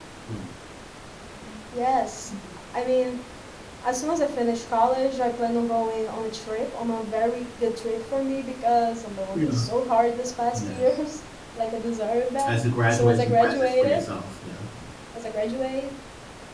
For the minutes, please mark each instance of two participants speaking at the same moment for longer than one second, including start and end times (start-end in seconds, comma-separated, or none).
12.4-14.0